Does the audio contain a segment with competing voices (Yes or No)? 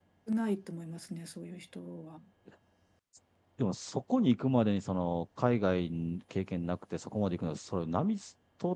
No